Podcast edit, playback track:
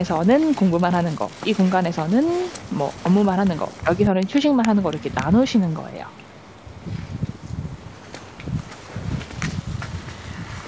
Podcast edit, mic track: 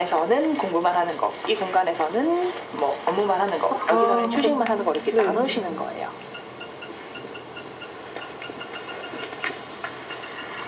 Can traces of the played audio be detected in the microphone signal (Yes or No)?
Yes